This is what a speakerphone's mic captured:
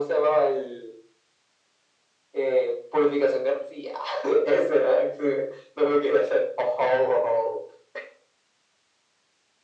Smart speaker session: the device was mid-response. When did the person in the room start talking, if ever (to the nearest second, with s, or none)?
none